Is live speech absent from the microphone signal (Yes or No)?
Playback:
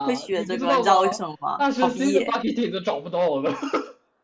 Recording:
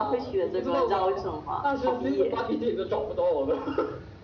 Yes